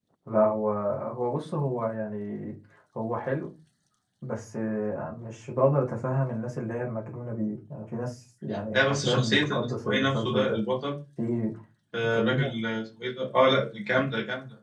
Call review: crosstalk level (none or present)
present